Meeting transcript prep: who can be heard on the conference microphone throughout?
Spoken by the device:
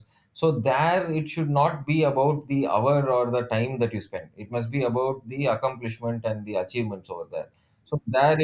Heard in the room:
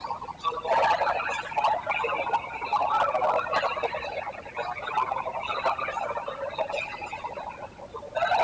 echo only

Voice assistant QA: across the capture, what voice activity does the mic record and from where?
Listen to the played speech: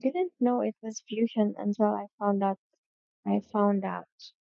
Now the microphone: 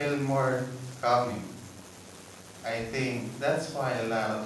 user only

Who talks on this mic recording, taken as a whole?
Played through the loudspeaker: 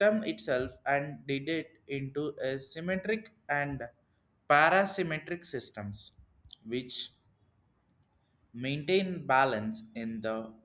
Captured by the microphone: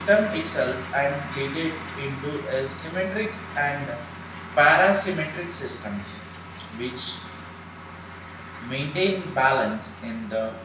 echo only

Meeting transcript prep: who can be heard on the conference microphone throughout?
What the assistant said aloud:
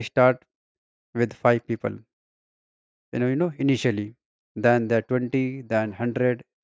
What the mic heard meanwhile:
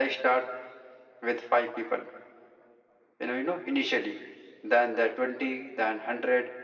echo only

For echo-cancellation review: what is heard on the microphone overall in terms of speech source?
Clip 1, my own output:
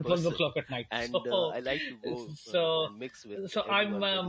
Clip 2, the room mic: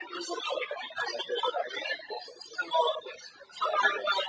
echo only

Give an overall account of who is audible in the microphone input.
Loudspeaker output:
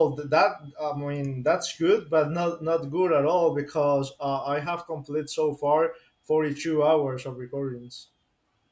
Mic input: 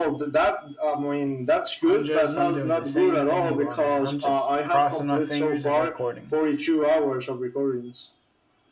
both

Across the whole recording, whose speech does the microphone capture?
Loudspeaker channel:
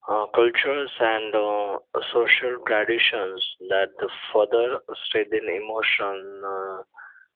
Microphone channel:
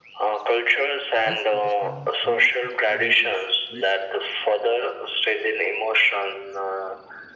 both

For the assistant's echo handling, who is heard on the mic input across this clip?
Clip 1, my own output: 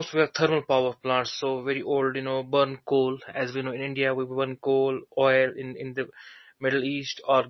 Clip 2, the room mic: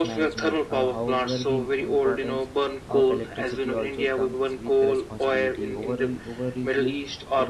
both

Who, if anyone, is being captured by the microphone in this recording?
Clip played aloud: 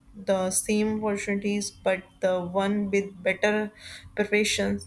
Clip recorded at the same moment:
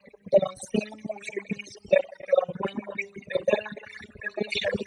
echo only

